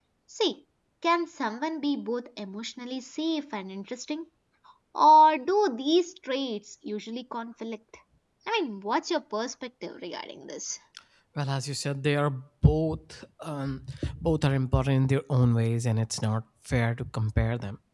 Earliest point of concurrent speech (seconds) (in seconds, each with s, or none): none